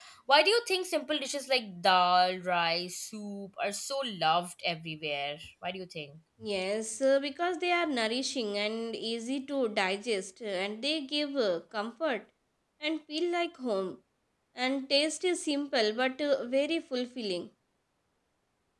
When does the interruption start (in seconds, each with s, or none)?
none